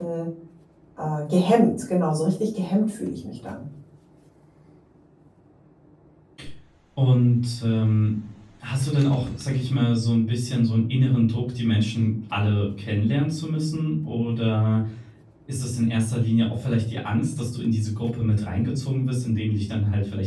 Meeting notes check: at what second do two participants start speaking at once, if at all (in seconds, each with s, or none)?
none